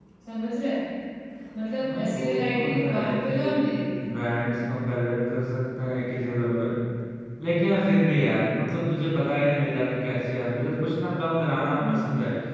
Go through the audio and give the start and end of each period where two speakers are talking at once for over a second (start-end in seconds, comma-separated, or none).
1.8-3.6